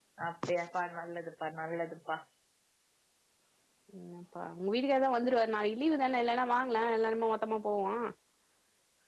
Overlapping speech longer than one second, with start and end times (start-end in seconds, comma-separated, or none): none